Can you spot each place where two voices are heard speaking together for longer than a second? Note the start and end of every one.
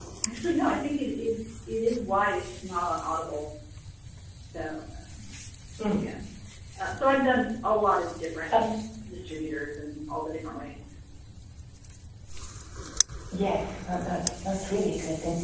none

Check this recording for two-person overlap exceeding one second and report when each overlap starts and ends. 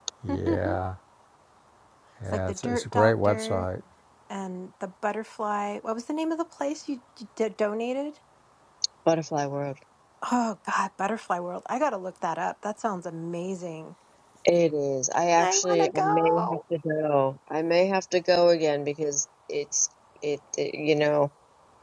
2.3-3.6, 15.4-16.6

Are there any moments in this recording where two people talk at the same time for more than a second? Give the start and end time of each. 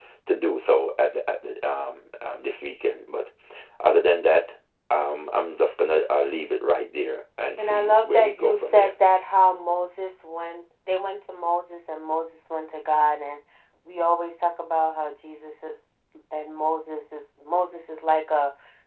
7.6-8.9

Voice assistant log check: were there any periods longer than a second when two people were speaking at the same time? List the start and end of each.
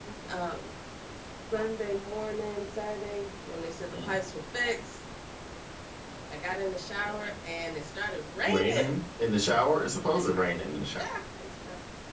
none

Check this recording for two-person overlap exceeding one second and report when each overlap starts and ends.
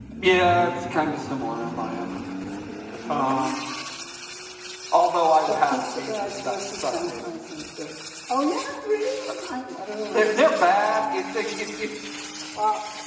5.5-7.3

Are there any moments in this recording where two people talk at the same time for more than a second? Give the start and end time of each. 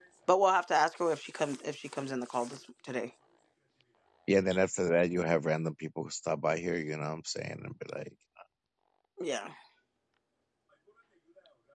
none

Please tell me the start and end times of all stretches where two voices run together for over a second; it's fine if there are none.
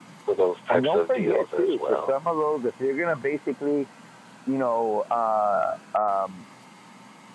0.7-2.1

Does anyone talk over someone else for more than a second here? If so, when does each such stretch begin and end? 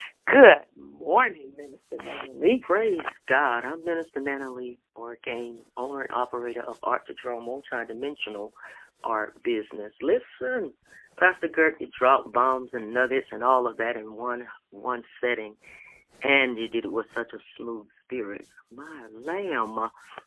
none

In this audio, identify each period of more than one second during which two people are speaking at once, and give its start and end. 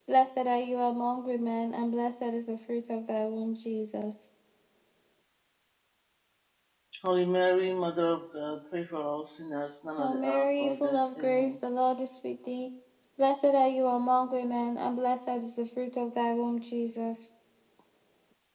10.0-11.5

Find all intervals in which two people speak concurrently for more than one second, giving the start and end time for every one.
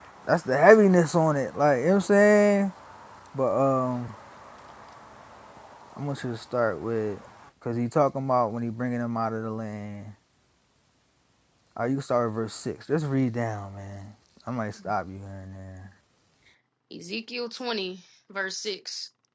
none

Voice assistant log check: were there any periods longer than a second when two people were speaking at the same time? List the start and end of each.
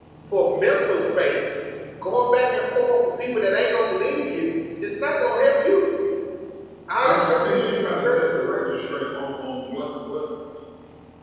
7.0-8.5

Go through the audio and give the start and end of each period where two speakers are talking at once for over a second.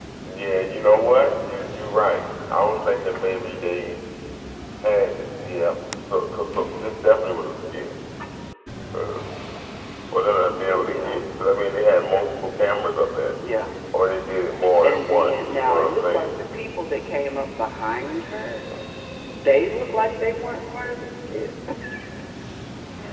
14.8-16.3

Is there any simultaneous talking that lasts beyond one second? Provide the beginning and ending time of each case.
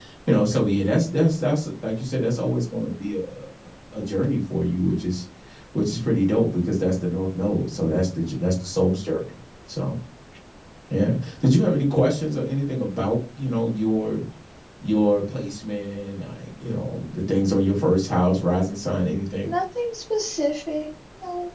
none

